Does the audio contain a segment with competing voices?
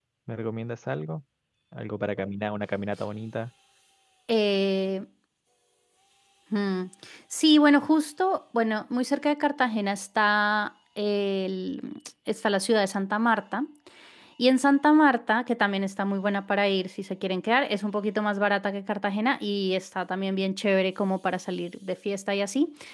No

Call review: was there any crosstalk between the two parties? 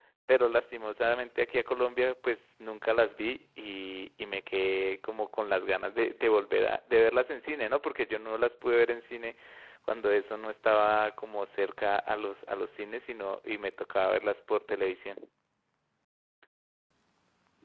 No

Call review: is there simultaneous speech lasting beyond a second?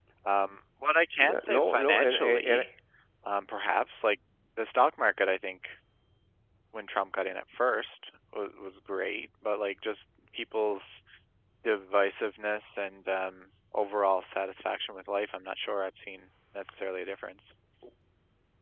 Yes, from 1.2 s

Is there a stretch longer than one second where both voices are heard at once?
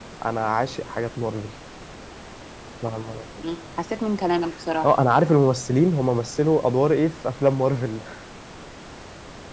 No

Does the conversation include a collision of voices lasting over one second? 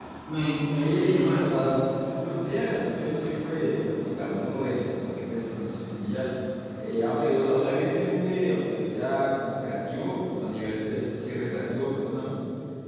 Yes, from 0.7 s

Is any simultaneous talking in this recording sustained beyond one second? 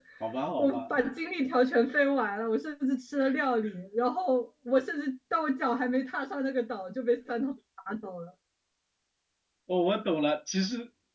No

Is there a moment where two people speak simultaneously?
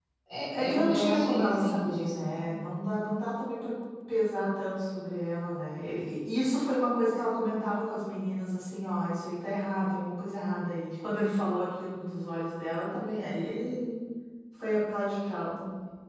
Yes, from 0.5 s

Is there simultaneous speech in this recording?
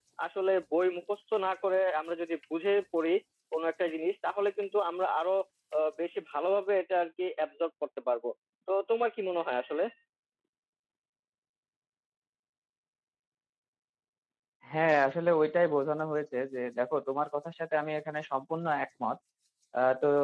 No

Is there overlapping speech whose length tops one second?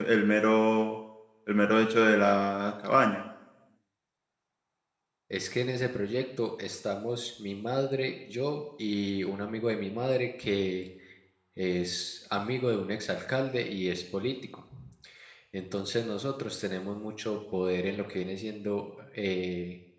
No

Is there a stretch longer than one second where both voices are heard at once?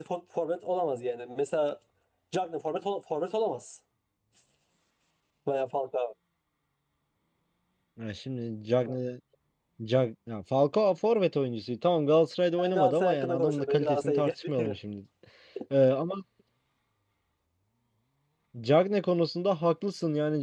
Yes, from 12.6 s

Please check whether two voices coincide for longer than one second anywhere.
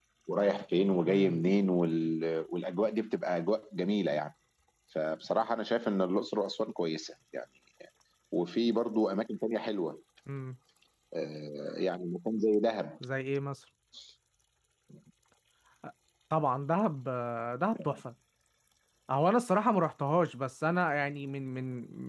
No

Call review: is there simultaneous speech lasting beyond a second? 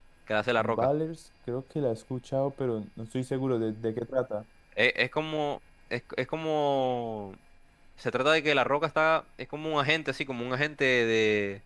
No

